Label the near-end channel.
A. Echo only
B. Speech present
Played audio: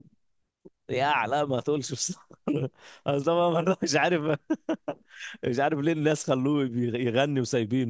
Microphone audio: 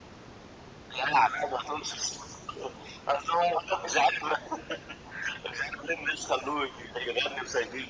A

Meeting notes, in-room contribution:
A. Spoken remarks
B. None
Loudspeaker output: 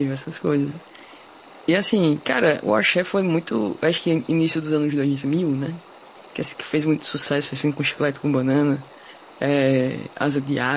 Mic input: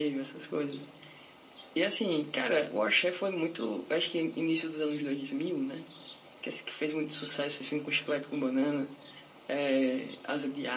B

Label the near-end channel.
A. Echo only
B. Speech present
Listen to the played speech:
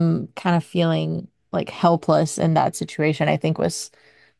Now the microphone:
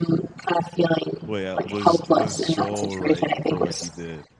B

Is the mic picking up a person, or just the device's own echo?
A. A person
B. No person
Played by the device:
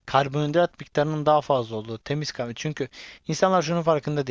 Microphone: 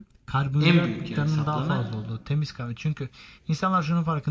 A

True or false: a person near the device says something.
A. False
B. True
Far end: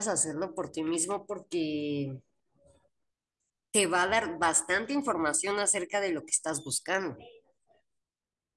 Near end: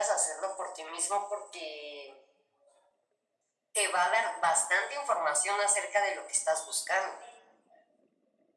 A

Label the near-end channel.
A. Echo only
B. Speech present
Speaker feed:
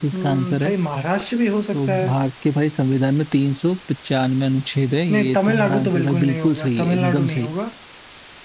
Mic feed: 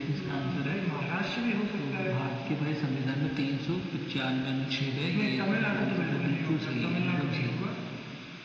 A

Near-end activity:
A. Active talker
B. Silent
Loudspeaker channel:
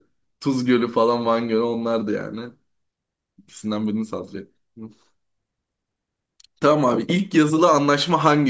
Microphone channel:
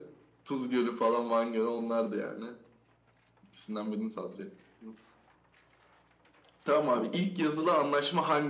B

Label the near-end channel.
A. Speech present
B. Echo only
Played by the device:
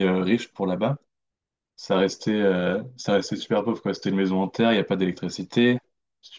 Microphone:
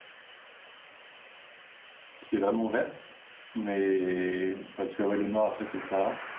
A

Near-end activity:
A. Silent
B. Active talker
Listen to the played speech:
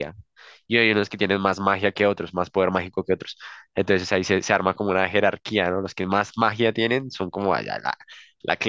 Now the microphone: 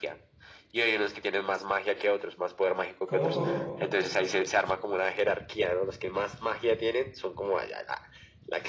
B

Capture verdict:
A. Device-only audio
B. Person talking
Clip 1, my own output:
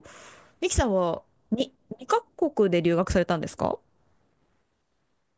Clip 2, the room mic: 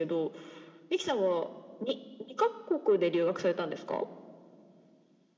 A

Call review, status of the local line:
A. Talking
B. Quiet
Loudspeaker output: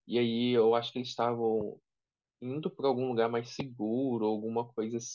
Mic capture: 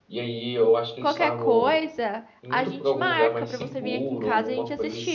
A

